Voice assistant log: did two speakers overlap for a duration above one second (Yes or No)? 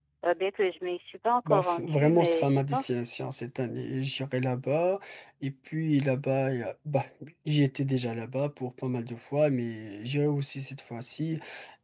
Yes